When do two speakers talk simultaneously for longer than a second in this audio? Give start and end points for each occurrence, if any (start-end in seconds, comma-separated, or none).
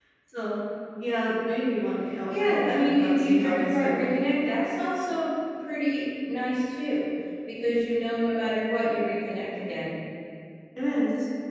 2.3-4.2